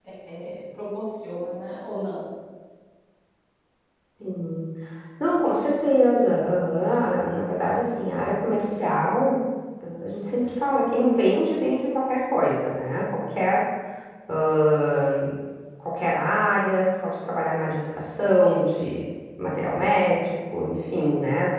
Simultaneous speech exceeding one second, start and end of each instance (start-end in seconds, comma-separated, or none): none